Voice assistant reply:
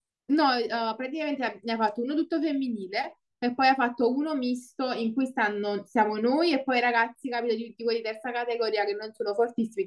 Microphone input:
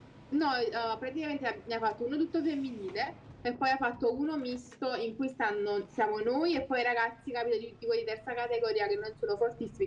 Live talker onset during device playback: none

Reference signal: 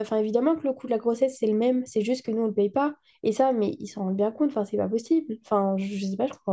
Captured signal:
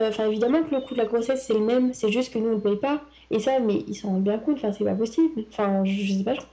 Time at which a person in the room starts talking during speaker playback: none

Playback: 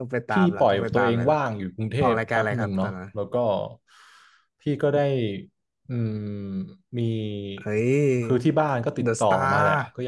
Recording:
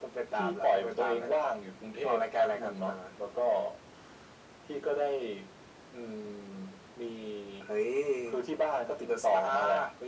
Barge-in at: none

